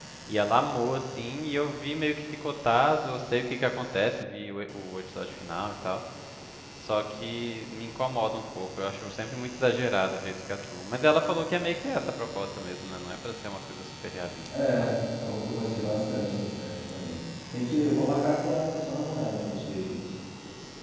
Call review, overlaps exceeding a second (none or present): none